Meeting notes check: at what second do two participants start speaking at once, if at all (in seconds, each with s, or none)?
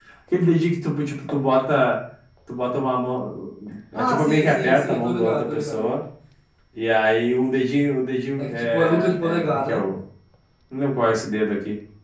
3.9 s